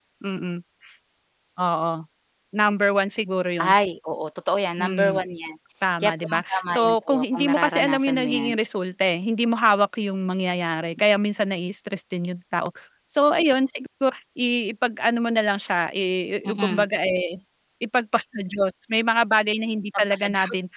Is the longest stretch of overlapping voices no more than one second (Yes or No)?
No